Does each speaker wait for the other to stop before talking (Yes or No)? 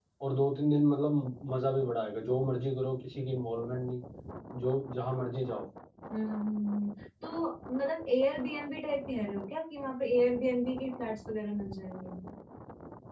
Yes